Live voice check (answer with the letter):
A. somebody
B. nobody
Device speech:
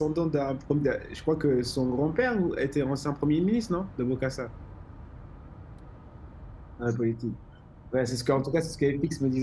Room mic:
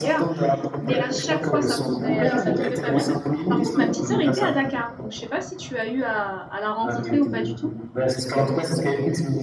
A